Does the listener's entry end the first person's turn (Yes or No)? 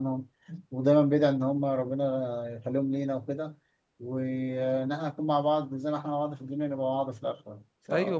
Yes